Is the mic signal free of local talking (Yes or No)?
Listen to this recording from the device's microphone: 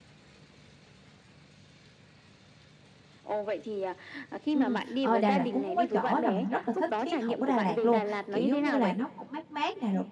No